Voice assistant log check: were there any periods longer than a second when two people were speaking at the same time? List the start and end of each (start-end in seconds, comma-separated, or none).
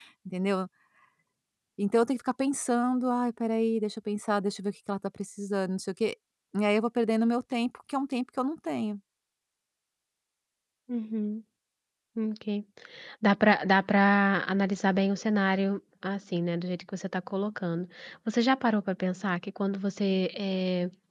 none